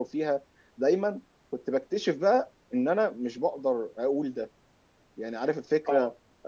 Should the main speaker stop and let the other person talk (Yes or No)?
No